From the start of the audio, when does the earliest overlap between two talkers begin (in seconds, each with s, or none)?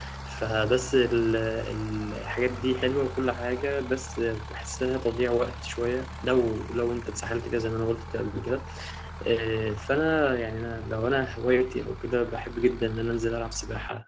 none